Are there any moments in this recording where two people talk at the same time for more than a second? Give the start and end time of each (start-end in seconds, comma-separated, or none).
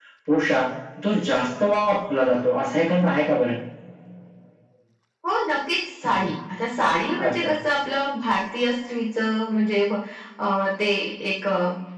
none